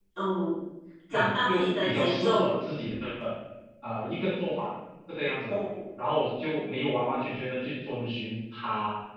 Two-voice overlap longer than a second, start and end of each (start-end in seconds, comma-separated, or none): 1.1-2.5